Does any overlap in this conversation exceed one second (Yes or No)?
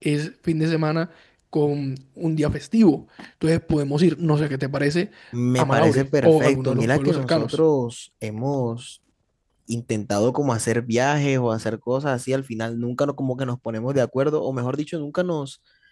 Yes